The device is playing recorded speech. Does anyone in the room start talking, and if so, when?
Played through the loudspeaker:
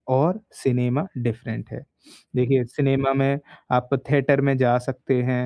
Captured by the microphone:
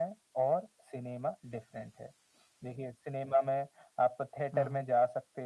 4.5 s

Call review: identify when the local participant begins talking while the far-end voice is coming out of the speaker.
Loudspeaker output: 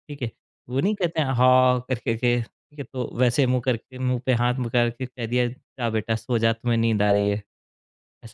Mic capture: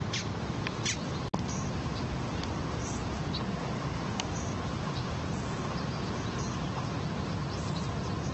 none

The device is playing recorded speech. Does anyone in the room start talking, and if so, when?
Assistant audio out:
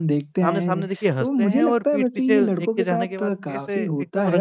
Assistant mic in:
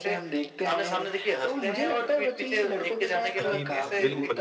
3.3 s

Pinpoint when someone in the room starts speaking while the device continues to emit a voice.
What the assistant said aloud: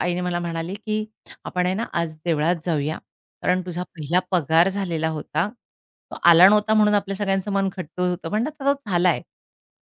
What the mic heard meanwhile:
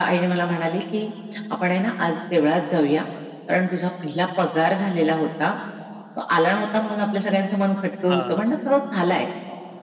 8.1 s

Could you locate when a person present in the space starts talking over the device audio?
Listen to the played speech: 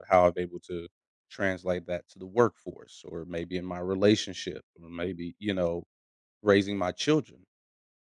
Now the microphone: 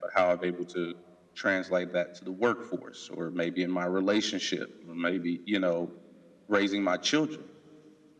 none

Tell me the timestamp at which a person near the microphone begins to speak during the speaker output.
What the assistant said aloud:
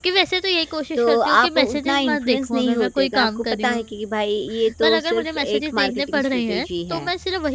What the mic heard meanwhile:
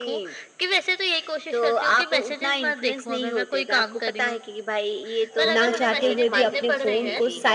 5.4 s

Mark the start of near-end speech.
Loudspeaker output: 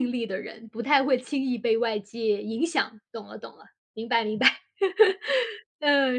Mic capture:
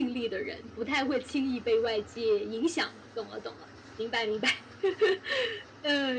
none

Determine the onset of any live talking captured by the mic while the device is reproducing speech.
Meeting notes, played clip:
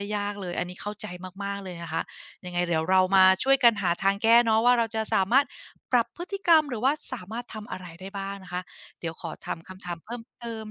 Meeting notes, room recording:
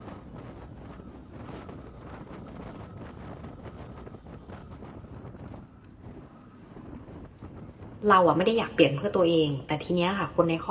8.1 s

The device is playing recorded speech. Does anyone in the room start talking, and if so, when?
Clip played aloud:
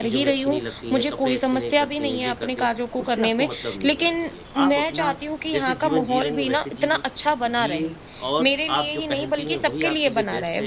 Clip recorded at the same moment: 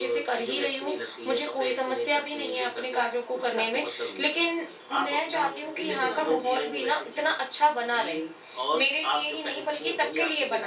5.3 s

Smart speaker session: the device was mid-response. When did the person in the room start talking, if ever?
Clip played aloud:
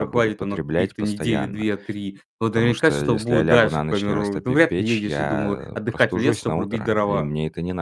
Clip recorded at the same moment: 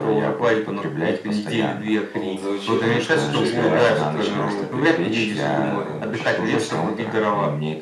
2.1 s

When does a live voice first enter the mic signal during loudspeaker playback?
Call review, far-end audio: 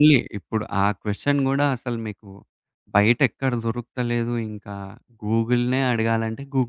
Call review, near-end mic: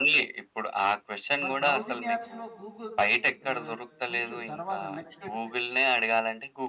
1.4 s

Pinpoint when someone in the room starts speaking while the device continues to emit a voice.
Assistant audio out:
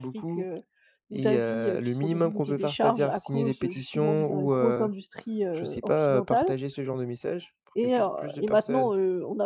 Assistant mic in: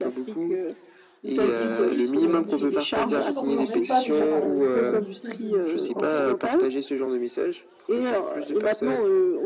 1.4 s

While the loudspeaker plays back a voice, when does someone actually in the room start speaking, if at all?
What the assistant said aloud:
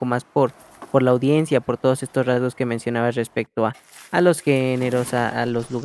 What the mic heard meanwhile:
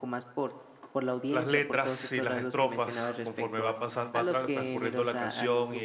1.3 s

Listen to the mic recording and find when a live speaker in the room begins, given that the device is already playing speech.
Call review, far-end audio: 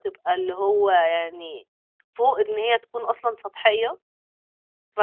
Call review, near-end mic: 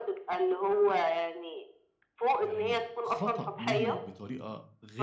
2.4 s

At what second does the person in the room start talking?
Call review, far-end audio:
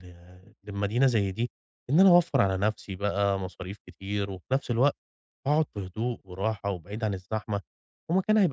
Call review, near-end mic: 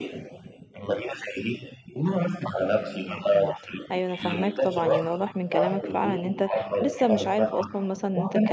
3.0 s

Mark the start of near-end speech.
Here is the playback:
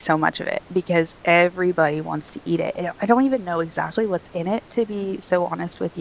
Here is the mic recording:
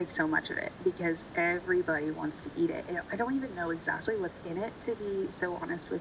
none

